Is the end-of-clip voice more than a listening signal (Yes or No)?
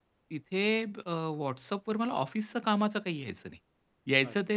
No